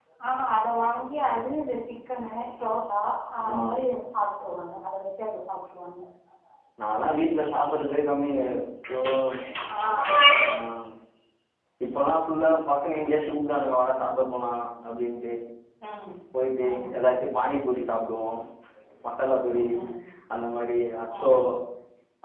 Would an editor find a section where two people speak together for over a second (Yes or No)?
No